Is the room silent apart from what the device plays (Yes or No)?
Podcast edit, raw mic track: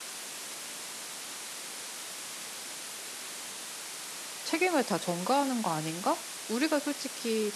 No